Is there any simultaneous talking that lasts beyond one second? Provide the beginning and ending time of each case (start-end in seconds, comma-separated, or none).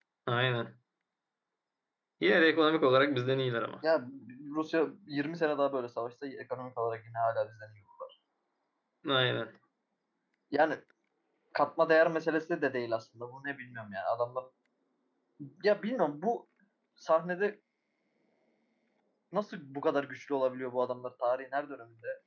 none